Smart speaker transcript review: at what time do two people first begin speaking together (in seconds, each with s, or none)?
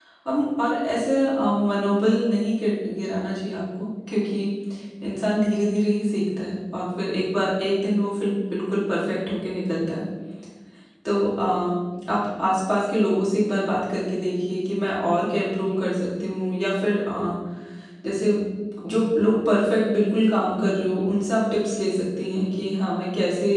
none